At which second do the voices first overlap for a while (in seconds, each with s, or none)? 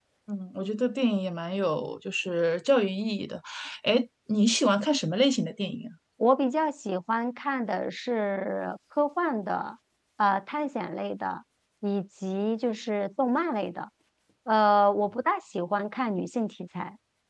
none